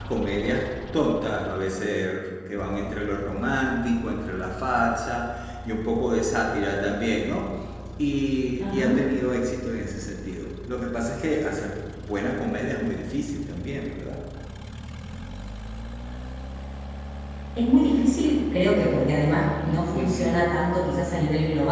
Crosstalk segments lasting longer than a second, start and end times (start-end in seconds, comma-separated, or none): none